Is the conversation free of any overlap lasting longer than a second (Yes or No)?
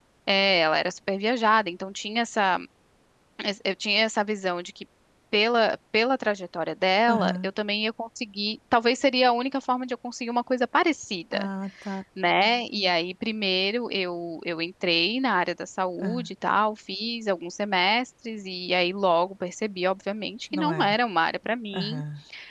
Yes